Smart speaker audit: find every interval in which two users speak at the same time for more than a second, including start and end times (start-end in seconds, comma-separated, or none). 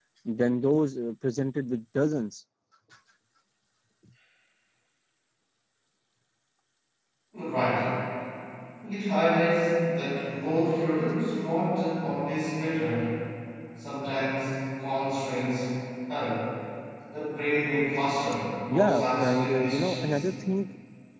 18.7-20.2